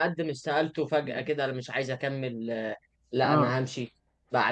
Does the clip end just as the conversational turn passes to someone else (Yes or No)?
No